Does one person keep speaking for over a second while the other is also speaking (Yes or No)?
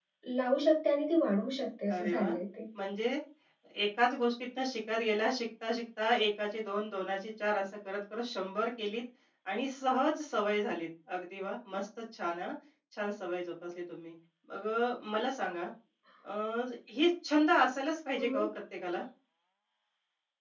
No